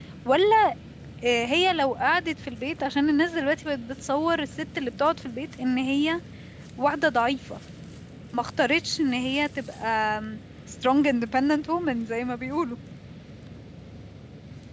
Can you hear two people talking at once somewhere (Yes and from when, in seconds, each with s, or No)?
No